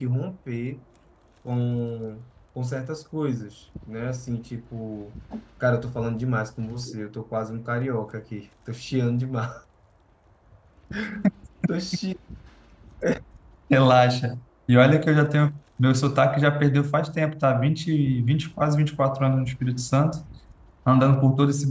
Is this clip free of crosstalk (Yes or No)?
Yes